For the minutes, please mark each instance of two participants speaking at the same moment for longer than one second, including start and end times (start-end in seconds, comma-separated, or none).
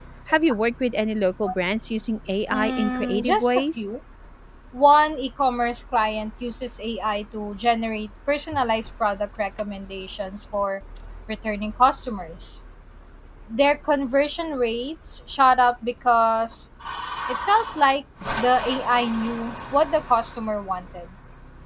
2.5-3.9